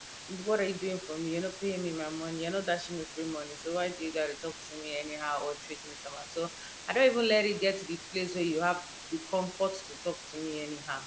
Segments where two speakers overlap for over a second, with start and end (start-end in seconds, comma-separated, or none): none